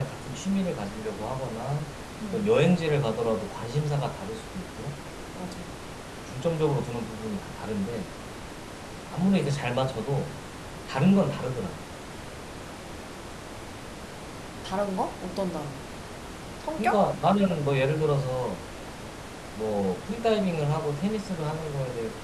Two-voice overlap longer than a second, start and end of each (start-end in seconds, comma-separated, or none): none